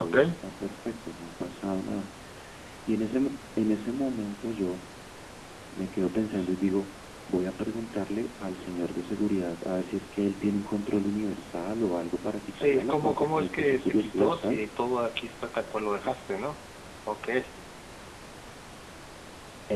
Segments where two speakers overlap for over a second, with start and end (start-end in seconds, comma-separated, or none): 12.6-14.7